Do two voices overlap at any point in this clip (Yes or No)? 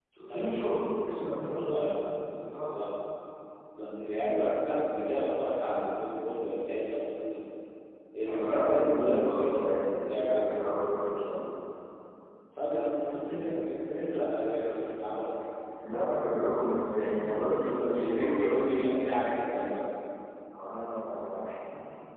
Yes